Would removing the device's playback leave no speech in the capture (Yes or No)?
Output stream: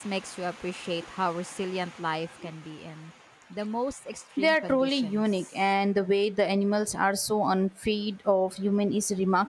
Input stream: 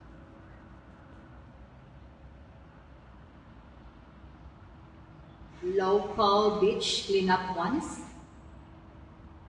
No